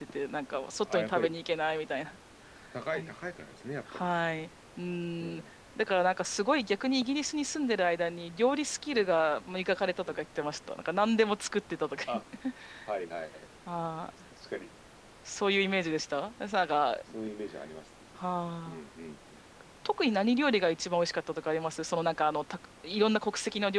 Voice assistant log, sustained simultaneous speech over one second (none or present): none